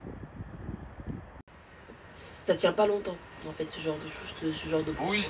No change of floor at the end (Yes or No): No